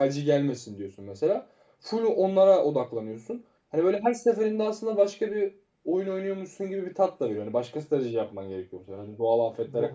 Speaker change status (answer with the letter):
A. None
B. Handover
B